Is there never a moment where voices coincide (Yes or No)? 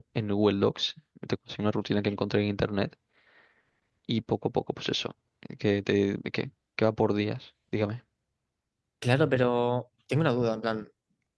Yes